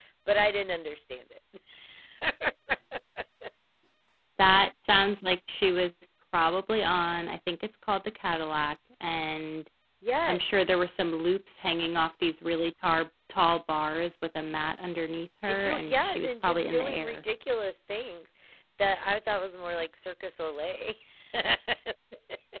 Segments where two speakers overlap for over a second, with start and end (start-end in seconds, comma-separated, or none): 15.5-17.2